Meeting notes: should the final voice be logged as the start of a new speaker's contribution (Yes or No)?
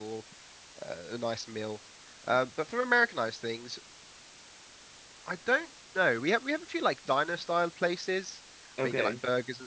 No